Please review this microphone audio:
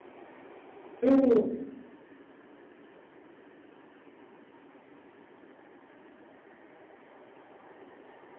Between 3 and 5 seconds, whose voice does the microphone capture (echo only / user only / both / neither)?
neither